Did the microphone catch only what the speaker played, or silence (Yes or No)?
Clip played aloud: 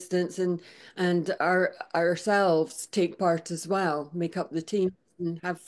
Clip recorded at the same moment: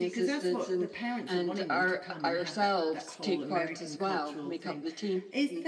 No